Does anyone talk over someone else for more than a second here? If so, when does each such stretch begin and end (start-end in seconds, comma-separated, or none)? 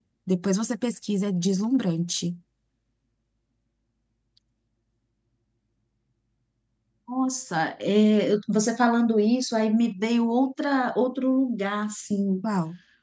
none